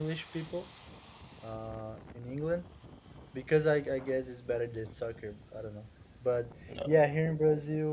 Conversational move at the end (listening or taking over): listening